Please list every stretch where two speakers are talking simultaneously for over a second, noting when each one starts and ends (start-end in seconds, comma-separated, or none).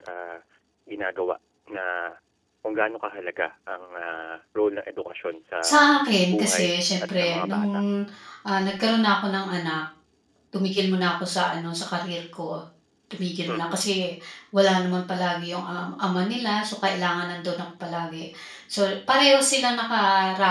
6.3-7.7